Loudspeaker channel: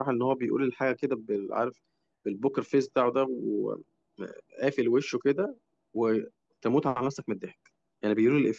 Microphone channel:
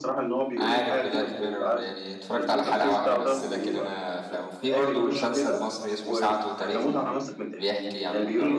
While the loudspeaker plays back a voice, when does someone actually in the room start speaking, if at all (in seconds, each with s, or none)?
0.6 s